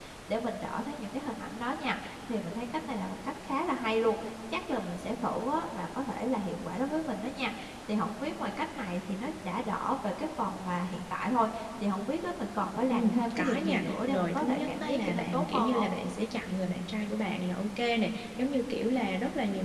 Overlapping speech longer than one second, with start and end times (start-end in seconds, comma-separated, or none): 12.9-15.9